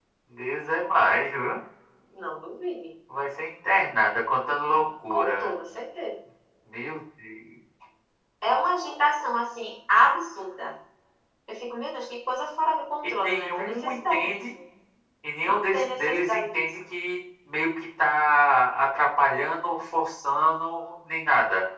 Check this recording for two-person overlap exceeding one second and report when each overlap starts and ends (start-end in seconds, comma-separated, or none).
13.0-14.4, 15.4-16.6